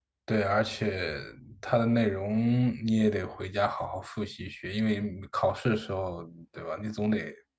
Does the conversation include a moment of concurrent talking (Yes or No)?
No